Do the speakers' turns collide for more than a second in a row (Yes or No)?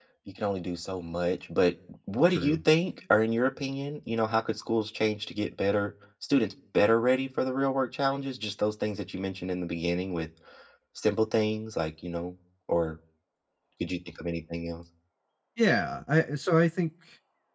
No